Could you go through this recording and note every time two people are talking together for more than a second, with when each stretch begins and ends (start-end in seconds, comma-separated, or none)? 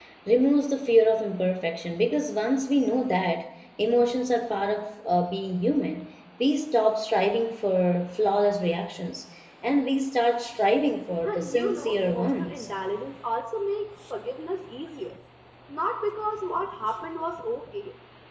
11.2-12.7